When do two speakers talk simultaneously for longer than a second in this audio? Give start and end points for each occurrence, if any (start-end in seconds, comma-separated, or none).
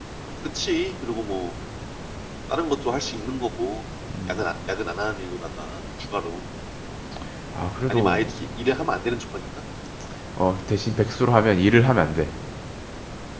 none